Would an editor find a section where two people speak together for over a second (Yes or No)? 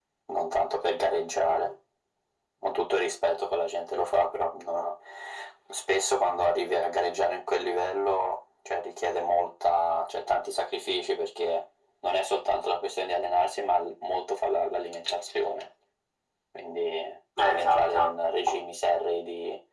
Yes